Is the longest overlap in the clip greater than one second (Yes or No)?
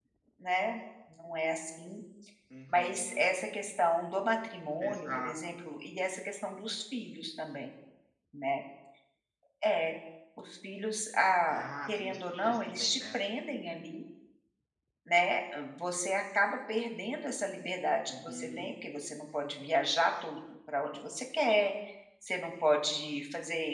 Yes